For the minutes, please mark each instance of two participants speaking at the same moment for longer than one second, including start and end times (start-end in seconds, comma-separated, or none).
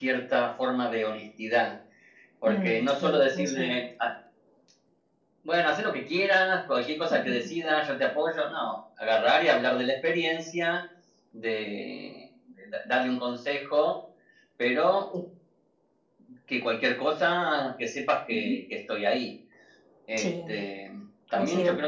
2.5-3.7